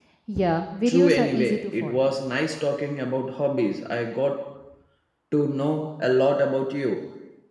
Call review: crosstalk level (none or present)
present